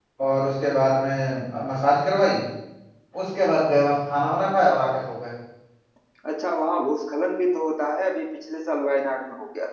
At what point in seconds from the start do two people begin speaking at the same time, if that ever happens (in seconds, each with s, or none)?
none